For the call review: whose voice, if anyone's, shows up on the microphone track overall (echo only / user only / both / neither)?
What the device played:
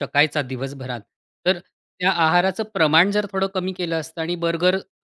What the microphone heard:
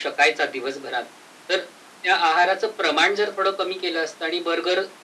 echo only